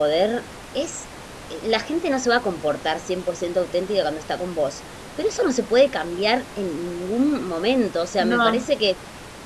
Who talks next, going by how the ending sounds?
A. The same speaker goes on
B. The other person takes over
A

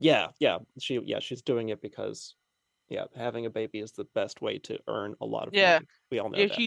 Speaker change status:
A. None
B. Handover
B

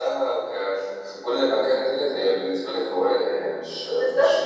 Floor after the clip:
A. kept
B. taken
B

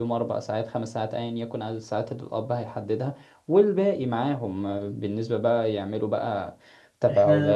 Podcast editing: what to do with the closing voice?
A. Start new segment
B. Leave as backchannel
B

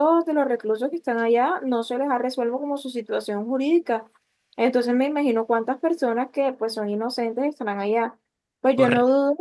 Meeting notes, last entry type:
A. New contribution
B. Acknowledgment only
B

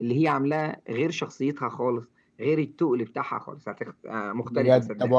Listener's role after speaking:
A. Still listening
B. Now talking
B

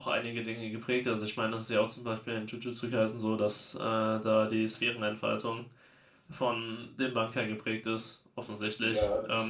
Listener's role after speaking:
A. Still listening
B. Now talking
B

